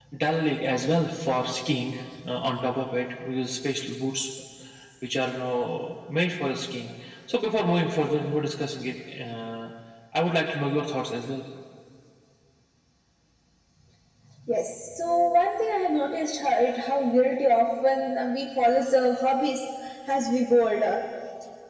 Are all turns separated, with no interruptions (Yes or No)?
Yes